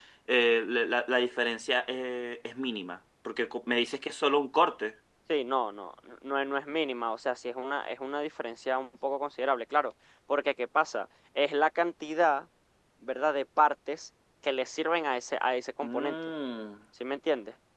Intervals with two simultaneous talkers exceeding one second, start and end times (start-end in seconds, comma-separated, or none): none